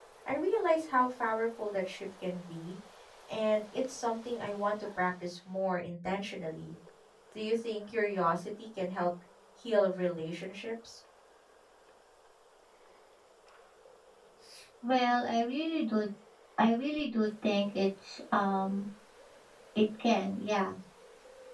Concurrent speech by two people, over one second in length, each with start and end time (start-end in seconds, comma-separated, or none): none